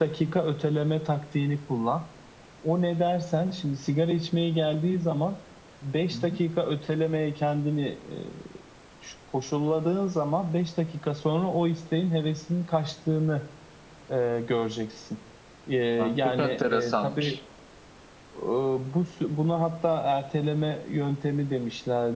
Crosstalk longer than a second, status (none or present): present